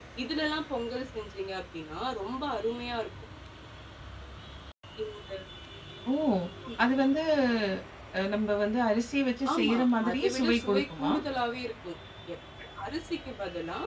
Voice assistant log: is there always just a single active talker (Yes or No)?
No